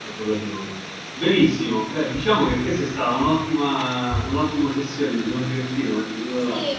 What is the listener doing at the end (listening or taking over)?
taking over